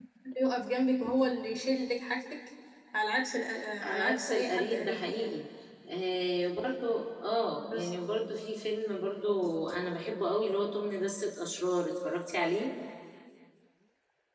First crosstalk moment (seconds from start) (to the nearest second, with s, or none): 4 s